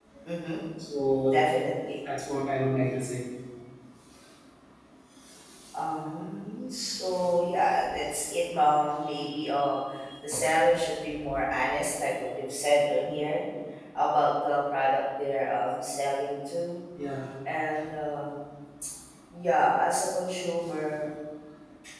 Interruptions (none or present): none